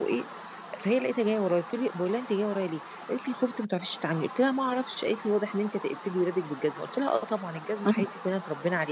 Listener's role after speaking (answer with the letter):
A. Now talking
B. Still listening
B